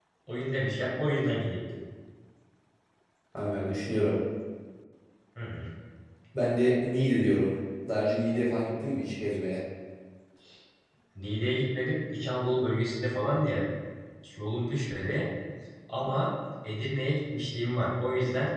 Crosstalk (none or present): none